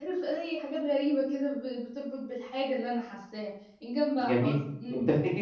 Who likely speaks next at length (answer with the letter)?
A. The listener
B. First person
A